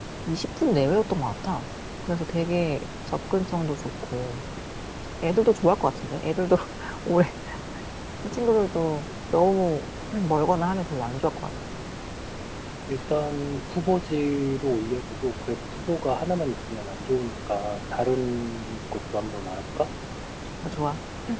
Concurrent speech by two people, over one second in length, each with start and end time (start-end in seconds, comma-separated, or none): none